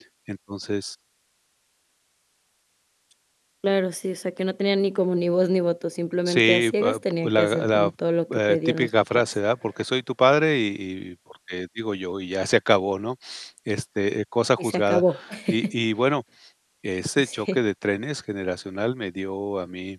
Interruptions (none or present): present